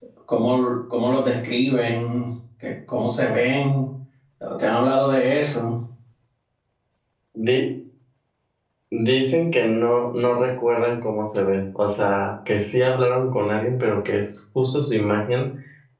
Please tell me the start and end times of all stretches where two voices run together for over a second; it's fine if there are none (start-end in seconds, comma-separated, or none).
none